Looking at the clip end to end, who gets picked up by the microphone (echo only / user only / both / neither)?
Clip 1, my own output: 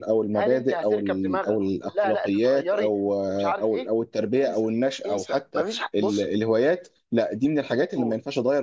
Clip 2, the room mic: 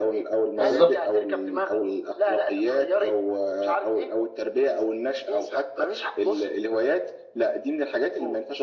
both